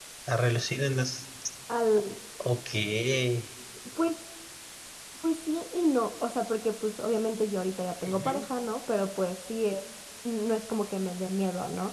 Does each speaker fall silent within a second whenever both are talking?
Yes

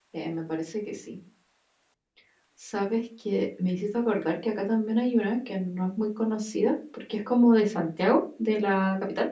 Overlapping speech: No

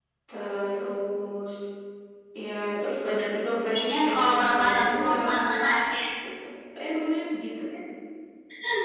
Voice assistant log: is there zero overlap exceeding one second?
No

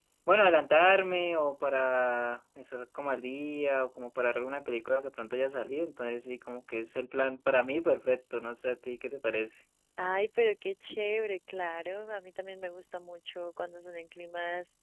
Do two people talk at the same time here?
No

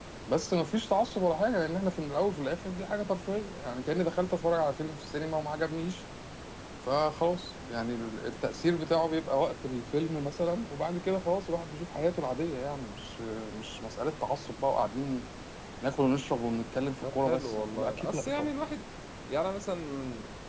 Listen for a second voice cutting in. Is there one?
Yes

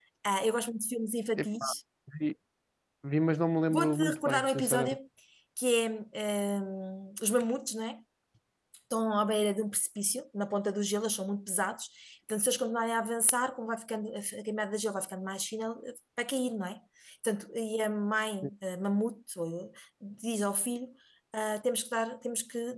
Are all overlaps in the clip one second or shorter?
No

